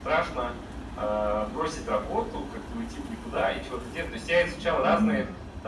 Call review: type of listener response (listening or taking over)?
listening